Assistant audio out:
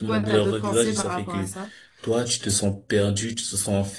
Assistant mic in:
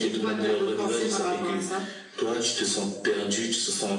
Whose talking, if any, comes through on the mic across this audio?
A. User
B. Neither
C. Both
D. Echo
D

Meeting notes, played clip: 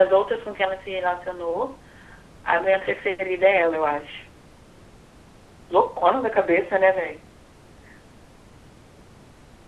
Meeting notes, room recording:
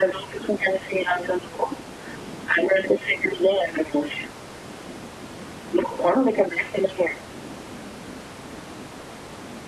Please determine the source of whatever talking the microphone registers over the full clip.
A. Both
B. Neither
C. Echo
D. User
C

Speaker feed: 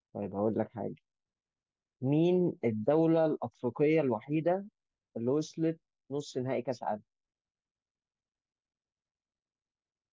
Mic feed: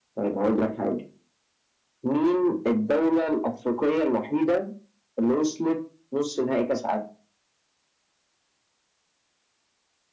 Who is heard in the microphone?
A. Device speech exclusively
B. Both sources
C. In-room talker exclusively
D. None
A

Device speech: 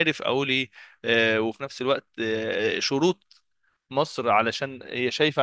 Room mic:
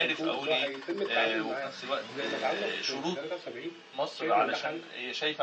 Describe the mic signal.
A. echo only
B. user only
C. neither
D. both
D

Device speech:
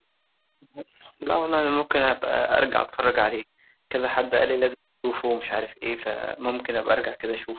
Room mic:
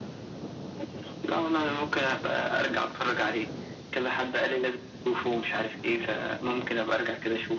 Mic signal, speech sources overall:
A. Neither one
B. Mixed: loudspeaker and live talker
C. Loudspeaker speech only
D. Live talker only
C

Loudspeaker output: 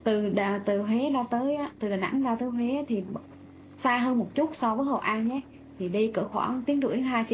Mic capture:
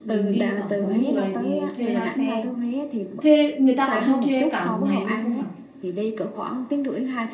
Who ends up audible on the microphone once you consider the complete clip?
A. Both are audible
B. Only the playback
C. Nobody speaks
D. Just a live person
A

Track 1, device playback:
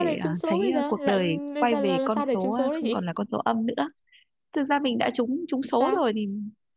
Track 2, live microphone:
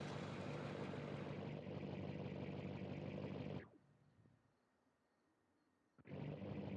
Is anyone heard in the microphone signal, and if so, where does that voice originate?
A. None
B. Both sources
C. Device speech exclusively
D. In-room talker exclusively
A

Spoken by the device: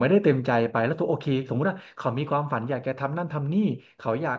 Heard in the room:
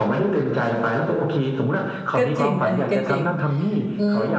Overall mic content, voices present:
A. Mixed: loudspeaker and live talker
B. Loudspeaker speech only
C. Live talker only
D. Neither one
A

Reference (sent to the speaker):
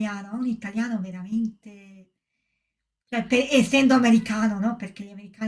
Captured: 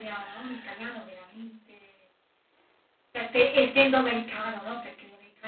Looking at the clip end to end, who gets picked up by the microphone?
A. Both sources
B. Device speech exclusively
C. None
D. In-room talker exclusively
B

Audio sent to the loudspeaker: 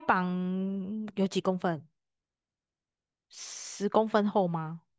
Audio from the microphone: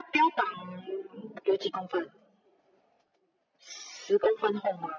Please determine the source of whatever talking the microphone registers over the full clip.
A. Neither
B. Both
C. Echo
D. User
C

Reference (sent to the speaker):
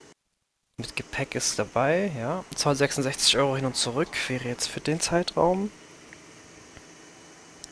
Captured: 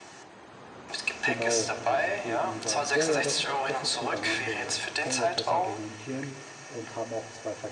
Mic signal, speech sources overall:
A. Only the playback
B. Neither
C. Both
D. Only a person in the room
C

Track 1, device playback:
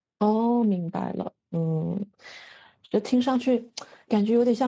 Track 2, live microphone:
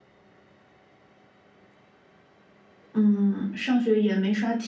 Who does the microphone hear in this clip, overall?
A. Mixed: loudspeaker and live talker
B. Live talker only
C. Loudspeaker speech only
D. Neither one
B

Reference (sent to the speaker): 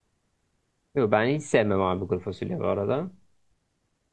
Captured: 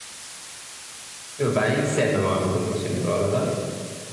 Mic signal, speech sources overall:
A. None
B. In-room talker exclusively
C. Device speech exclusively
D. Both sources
C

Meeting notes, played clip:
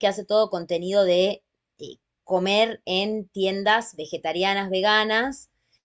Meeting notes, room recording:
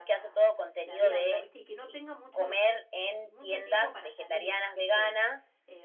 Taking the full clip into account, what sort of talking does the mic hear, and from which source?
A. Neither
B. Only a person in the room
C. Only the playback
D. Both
D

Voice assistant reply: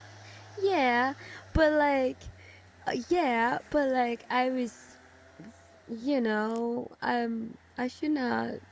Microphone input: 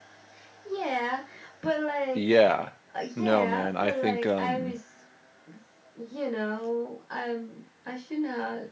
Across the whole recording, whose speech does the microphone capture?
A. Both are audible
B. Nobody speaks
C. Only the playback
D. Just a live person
A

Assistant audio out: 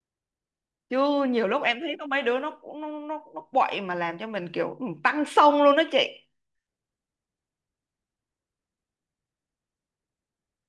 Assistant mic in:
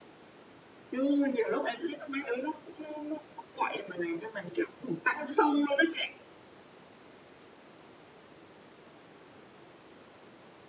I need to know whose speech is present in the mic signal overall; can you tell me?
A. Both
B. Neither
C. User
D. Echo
D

